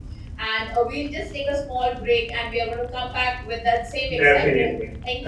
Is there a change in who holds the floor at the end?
Yes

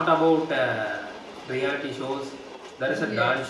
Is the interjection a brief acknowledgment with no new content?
Yes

